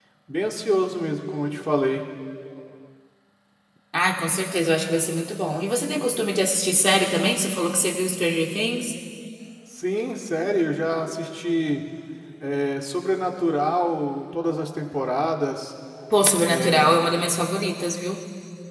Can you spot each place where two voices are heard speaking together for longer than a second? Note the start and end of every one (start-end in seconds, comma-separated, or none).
none